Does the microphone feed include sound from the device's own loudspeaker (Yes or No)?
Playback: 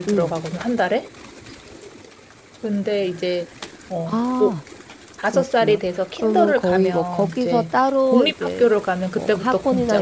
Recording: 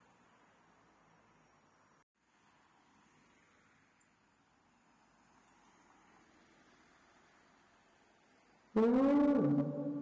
No